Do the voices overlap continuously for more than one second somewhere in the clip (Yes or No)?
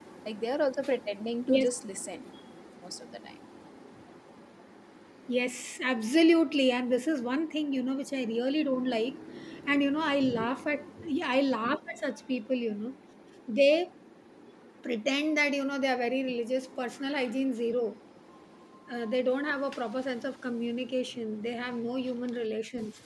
No